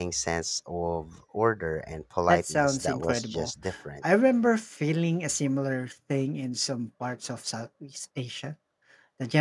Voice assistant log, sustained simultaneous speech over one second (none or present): present